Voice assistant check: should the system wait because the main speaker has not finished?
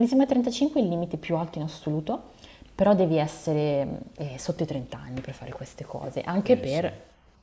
Yes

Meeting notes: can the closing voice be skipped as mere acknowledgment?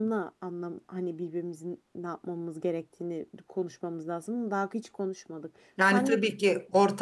No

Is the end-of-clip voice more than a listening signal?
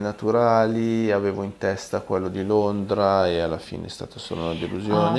Yes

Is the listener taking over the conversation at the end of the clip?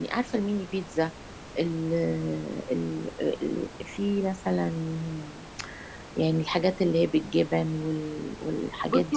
Yes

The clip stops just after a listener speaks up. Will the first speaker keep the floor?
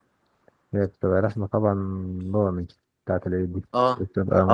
No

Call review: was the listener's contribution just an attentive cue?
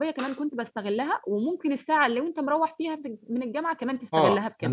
No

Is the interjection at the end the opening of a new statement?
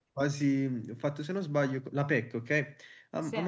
No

